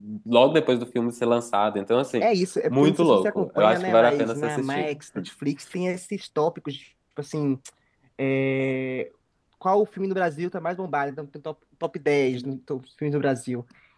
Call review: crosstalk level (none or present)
present